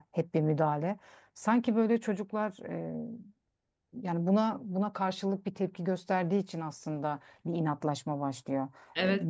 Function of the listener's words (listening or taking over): taking over